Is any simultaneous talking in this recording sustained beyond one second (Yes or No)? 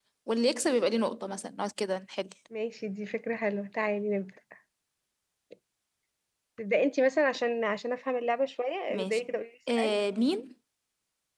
No